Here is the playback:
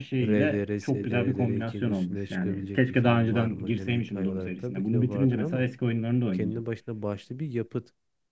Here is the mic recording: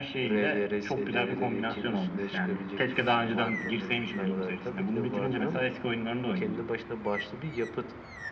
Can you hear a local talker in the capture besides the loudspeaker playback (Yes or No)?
No